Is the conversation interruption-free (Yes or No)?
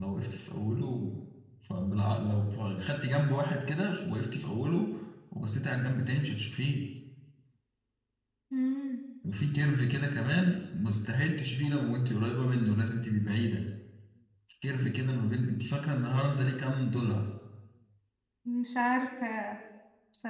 Yes